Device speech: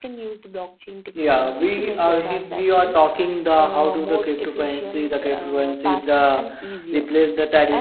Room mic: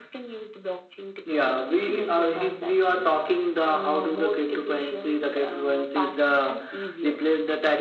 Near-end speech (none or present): none